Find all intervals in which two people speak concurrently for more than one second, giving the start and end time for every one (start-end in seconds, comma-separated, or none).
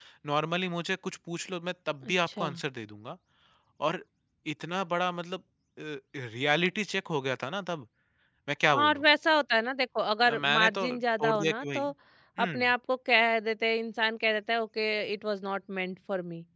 10.2-11.8